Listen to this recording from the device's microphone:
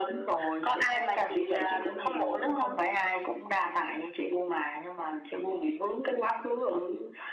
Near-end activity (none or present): none